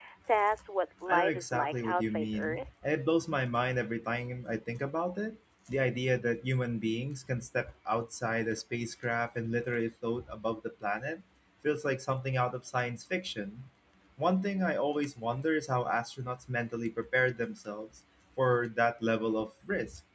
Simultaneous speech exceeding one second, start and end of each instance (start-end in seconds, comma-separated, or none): 1.1-2.7